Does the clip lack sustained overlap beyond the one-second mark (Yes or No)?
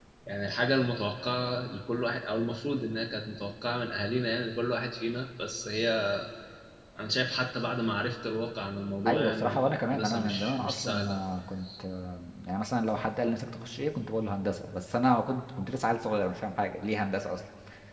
No